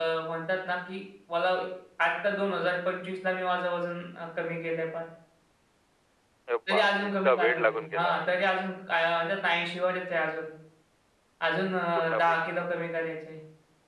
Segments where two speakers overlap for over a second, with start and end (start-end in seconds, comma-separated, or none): 6.7-8.1